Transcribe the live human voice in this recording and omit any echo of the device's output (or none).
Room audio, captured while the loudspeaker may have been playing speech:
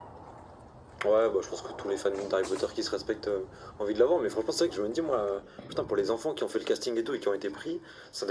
none